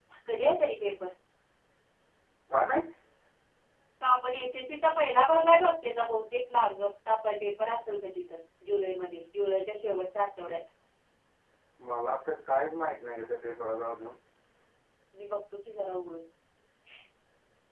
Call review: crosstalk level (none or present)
none